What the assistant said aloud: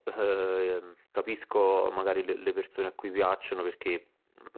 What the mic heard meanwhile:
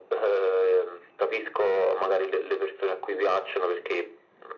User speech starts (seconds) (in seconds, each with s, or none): none